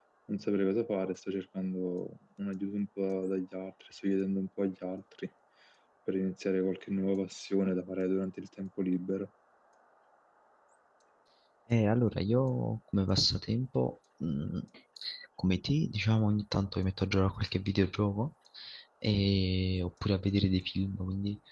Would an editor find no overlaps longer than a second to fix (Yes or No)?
Yes